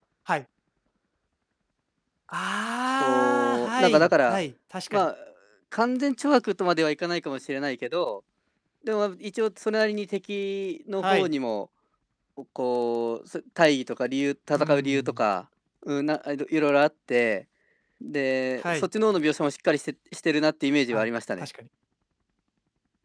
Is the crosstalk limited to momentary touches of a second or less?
No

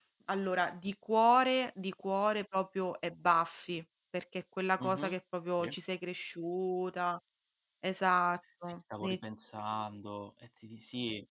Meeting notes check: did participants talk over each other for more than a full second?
No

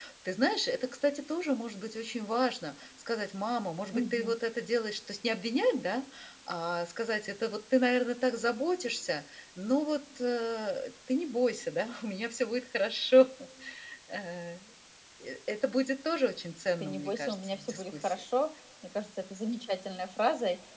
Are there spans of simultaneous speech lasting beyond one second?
Yes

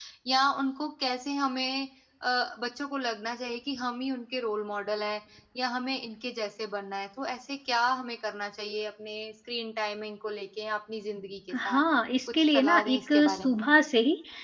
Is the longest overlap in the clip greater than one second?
Yes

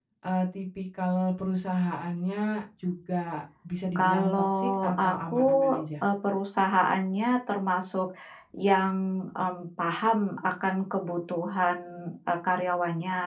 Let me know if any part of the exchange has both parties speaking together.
Yes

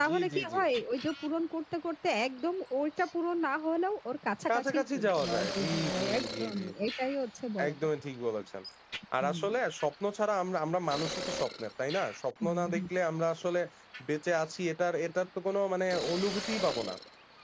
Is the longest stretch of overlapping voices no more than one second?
No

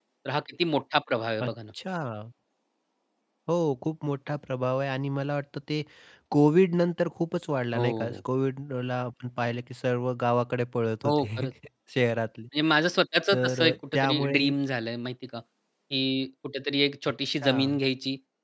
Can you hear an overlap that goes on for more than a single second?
Yes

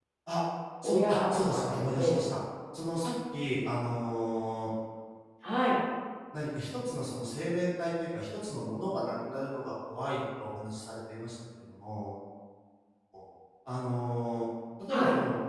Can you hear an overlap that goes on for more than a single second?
Yes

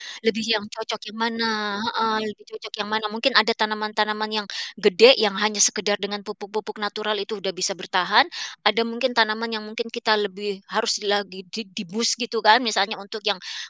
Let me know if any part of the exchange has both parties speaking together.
No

